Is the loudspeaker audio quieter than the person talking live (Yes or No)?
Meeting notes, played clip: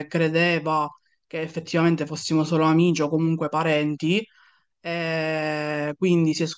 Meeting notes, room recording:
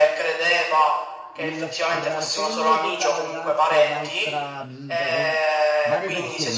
No